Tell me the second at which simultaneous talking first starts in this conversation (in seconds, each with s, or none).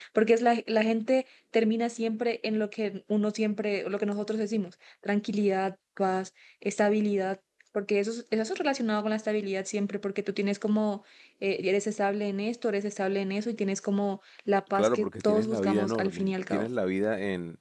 14.7 s